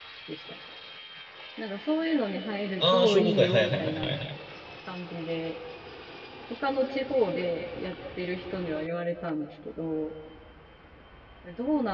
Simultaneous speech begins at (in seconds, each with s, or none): 2.8 s